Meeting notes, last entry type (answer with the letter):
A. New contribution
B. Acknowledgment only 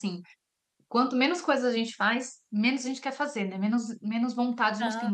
B